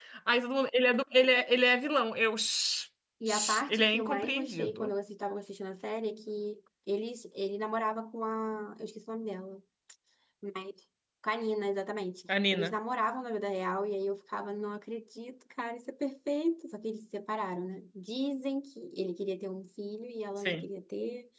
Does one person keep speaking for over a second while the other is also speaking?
Yes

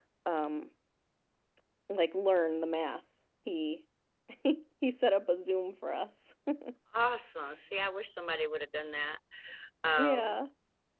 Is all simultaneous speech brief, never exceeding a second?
Yes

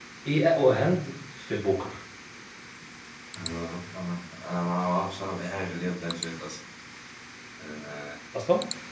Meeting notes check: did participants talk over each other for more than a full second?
No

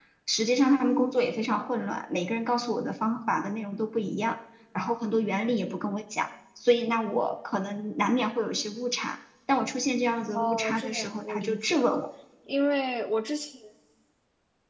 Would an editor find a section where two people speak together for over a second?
Yes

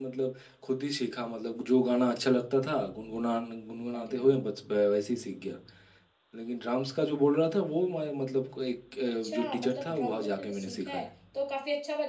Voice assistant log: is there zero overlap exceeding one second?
No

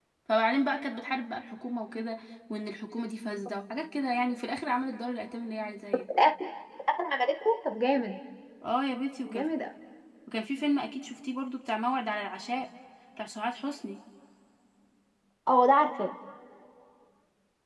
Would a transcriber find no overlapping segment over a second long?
Yes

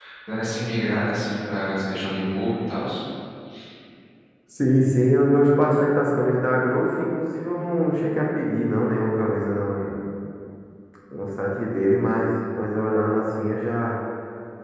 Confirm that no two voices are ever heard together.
Yes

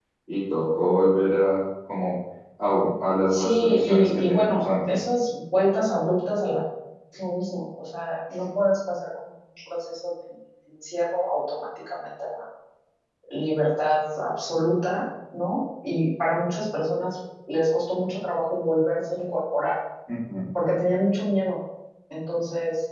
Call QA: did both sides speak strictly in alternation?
No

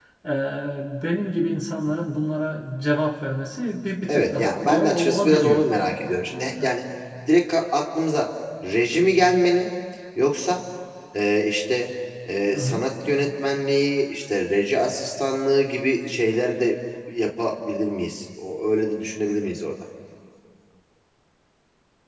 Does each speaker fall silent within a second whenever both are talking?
No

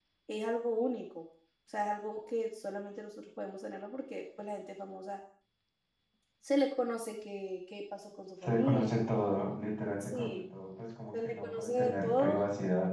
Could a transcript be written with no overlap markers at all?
No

